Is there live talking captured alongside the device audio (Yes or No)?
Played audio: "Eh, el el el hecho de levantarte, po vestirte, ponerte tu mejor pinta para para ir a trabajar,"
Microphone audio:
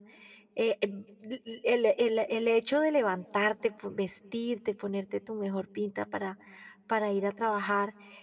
No